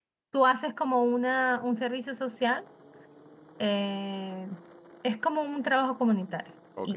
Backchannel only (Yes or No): No